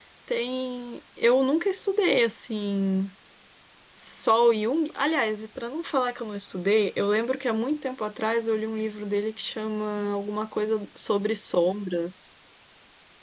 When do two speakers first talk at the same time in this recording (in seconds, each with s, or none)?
none